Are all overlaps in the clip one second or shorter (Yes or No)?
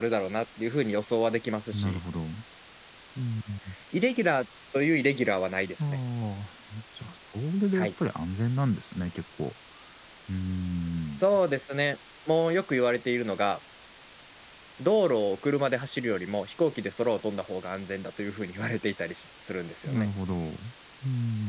Yes